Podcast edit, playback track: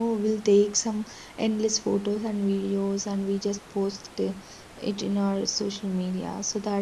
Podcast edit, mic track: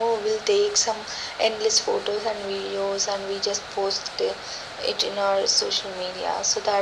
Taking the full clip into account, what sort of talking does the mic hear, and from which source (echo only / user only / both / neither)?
echo only